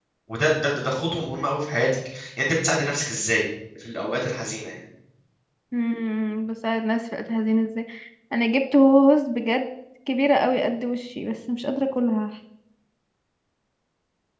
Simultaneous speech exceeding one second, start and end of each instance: none

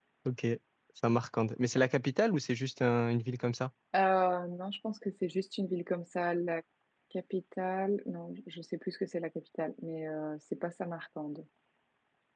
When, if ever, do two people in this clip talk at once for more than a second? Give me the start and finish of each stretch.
none

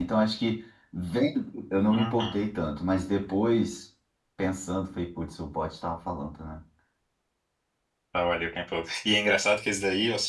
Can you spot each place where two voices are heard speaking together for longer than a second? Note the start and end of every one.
none

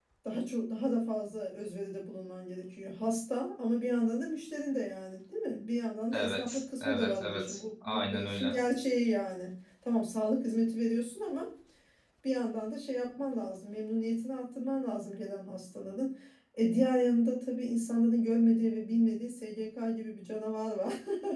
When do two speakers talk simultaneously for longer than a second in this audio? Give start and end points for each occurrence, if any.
6.1-8.5

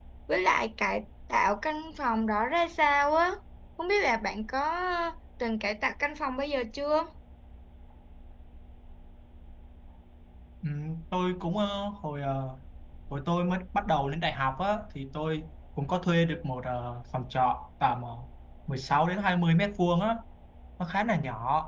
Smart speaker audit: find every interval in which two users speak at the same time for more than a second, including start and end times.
none

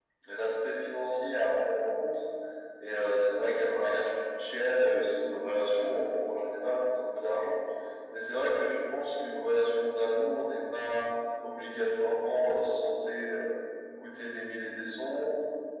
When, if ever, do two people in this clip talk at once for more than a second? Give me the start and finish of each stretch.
none

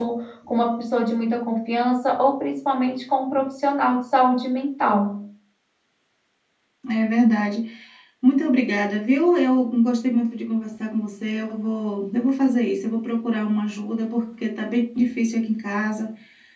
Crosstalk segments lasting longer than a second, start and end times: none

